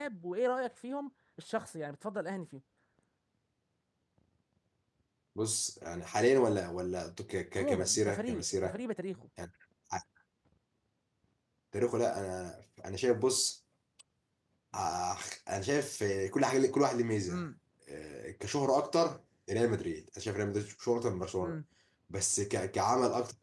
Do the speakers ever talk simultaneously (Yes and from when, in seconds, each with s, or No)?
Yes, from 7.6 s